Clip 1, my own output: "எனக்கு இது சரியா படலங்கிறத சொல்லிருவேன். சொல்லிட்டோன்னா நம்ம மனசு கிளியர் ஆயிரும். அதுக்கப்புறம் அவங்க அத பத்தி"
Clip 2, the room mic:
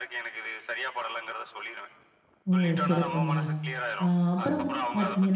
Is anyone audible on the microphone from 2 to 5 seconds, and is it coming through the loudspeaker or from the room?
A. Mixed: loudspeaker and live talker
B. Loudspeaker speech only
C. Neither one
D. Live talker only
A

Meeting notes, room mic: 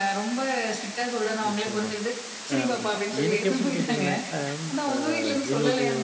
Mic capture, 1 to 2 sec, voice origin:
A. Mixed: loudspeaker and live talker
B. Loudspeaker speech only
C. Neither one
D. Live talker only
A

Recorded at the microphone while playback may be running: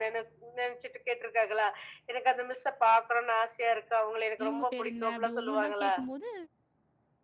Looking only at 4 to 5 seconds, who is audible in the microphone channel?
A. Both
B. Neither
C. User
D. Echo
A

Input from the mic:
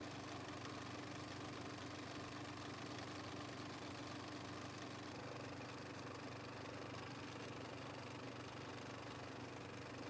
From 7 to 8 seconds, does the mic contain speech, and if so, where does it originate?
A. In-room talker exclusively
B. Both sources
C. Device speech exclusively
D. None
D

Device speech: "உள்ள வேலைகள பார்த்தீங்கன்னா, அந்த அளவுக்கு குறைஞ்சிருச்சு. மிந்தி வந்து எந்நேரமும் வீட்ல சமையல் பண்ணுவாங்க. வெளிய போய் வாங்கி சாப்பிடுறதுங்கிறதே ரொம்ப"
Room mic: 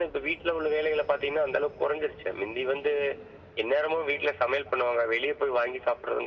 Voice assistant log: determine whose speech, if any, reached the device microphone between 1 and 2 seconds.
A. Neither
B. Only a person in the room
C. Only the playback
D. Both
C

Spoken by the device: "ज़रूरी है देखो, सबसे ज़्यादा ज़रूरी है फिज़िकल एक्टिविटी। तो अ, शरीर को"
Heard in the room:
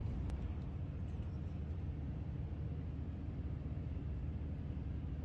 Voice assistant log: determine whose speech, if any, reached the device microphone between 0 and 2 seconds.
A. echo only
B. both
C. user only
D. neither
D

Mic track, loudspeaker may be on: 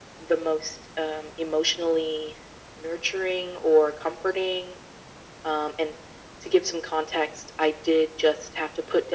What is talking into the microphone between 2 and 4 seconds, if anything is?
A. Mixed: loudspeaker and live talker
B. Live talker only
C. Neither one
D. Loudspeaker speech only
D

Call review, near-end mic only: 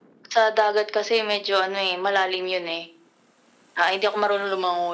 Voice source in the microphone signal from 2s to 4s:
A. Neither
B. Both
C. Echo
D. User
C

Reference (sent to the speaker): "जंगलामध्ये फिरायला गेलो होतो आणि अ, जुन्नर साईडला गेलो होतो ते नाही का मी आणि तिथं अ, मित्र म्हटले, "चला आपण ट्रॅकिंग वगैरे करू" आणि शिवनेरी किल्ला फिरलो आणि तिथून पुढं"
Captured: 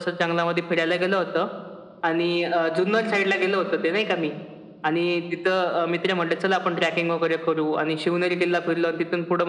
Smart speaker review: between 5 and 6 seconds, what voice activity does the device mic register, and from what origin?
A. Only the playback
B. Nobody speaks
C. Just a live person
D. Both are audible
A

